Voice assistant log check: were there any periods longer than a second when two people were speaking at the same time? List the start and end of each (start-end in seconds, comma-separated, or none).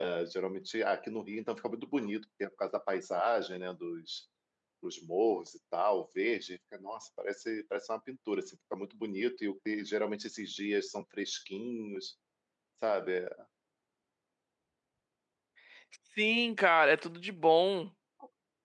none